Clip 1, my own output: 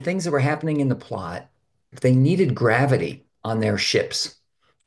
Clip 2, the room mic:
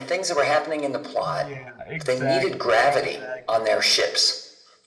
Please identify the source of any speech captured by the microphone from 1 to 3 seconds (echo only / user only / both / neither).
both